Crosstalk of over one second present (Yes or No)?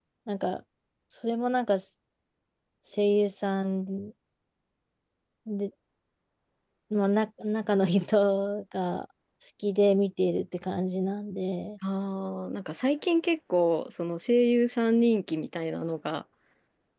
No